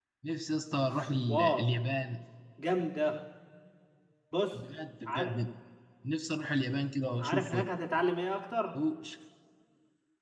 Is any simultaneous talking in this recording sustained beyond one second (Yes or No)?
No